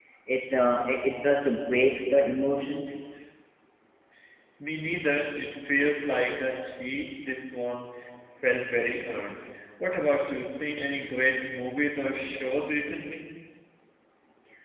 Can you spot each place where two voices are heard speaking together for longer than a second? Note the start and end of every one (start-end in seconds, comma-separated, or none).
none